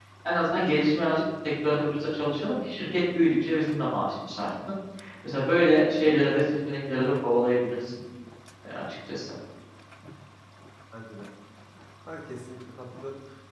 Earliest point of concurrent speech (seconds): none

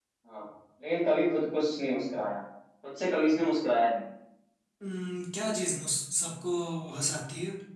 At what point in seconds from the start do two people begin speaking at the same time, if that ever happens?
none

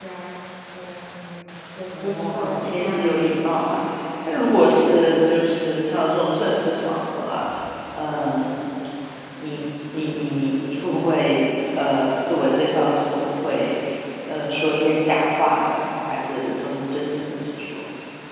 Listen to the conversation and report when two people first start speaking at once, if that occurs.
1.9 s

